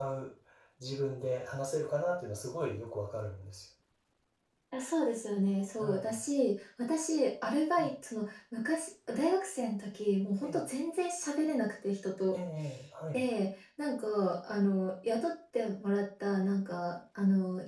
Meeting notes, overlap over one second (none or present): none